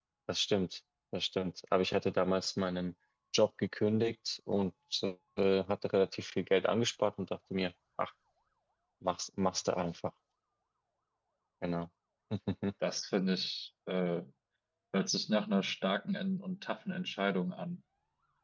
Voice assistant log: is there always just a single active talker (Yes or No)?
Yes